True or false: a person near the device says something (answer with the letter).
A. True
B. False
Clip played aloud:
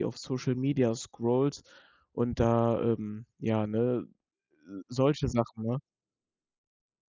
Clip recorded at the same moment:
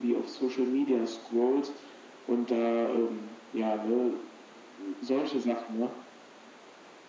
B